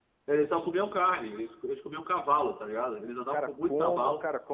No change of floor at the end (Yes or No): No